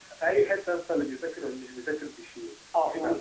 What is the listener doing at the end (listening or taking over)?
taking over